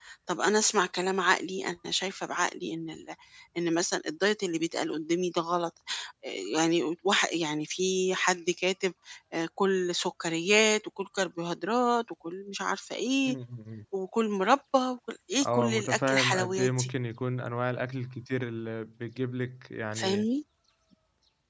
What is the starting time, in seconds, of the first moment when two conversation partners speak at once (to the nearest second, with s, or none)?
16 s